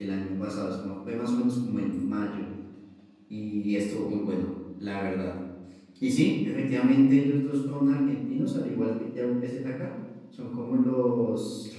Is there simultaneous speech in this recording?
No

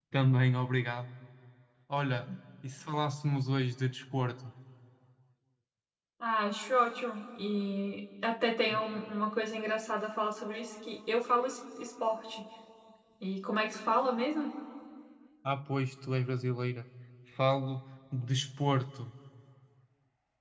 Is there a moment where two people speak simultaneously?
No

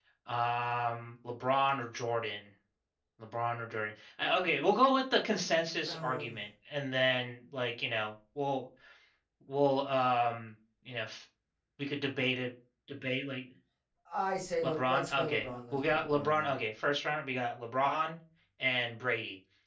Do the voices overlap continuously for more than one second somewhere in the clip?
Yes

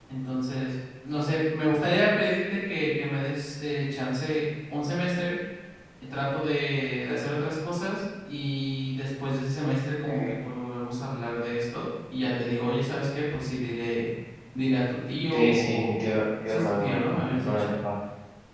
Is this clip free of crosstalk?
No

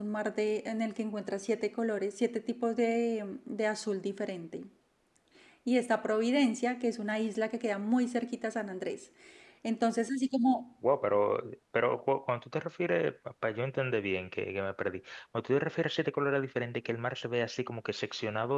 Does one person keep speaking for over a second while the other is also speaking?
No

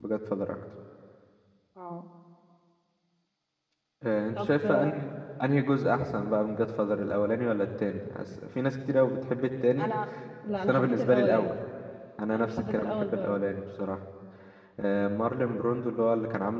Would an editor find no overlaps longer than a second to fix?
No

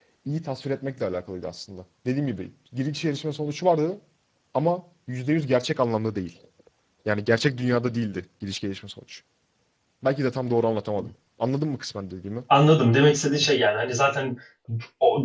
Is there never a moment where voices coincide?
Yes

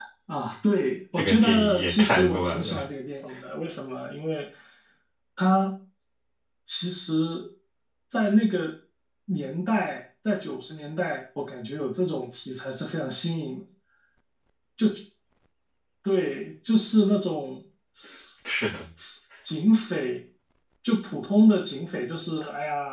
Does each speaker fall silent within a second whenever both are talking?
No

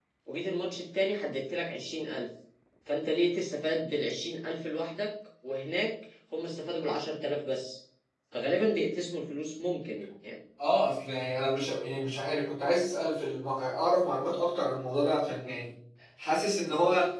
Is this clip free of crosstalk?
Yes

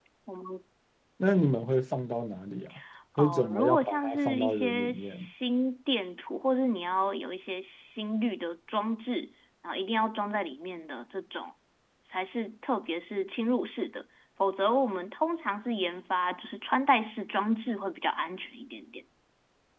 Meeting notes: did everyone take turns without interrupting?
No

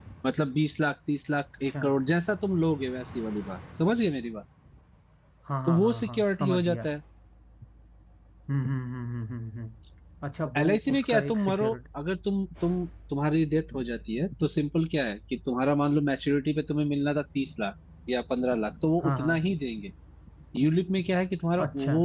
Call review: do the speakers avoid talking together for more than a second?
No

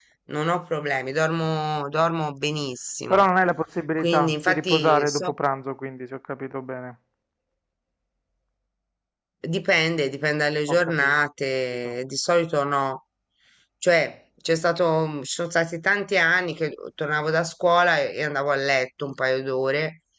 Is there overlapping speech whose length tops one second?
Yes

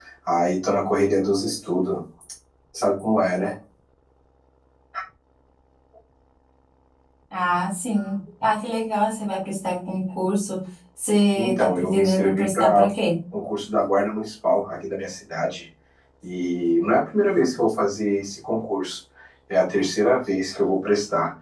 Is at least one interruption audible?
Yes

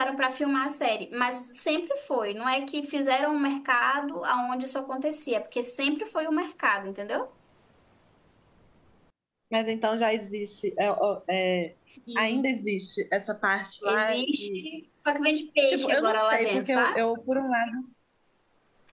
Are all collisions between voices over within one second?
No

